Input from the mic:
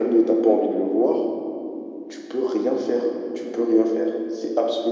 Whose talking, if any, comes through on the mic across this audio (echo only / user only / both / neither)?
echo only